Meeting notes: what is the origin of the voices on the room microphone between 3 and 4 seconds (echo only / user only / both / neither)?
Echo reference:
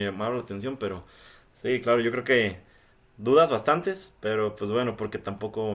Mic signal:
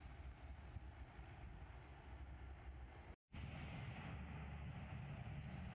neither